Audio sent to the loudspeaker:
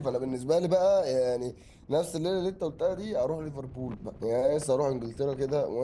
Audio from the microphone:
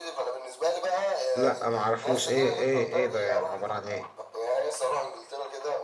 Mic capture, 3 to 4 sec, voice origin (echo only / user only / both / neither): both